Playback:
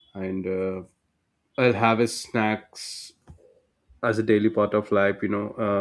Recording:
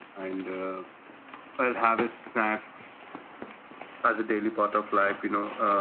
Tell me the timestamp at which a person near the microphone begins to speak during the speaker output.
none

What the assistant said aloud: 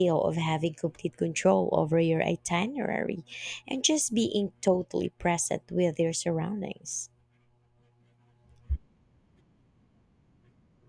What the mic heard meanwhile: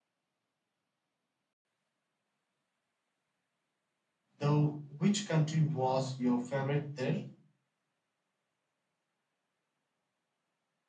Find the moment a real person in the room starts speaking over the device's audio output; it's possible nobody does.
4.4 s

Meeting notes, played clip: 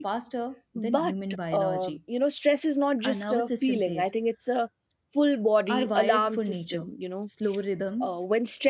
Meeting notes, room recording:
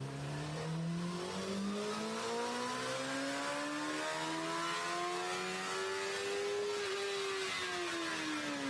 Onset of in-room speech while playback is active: none

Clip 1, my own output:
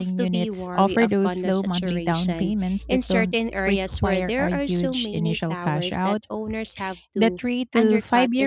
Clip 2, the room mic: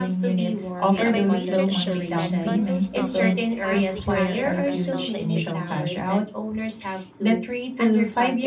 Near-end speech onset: 0.9 s

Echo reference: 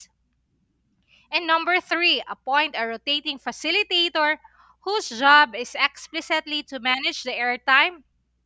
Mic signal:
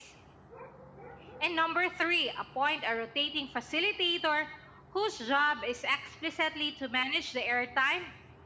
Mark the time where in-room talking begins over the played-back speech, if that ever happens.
none

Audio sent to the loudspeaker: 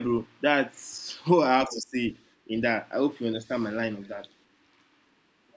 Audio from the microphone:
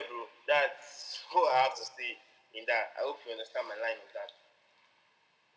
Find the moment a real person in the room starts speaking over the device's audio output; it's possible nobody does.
none

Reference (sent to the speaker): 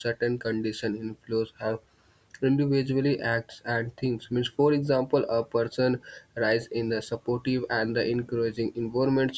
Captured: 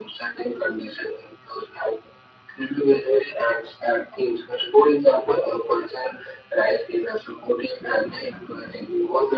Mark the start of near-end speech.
none

